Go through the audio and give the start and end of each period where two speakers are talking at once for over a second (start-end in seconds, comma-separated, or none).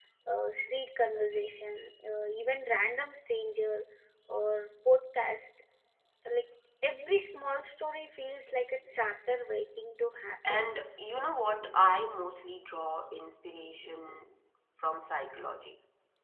none